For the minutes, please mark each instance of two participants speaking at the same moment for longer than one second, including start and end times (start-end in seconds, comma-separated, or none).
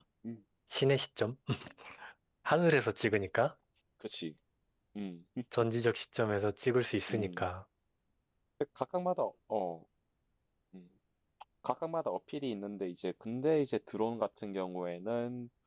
none